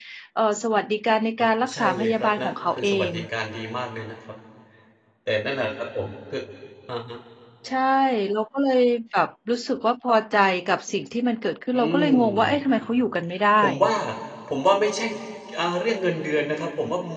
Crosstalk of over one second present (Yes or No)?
Yes